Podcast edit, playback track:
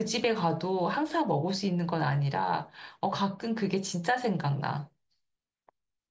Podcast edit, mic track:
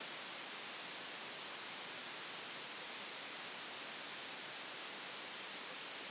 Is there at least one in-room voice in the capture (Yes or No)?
No